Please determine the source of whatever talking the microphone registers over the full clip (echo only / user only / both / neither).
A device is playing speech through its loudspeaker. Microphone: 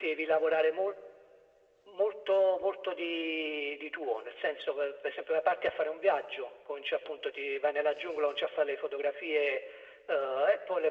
echo only